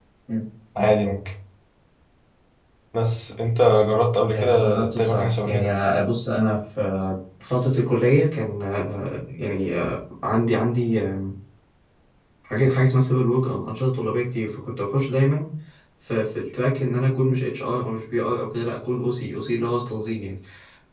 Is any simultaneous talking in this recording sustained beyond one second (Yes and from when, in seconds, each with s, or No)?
Yes, from 4.3 s